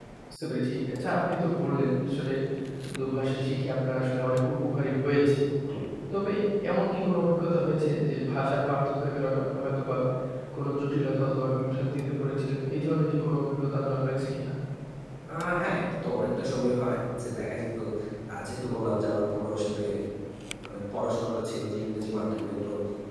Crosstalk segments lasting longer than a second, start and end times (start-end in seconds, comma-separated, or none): none